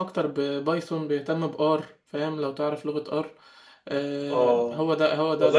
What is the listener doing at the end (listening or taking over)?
taking over